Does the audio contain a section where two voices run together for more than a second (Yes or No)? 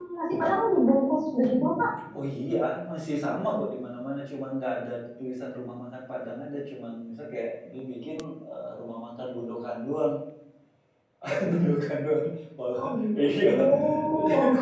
No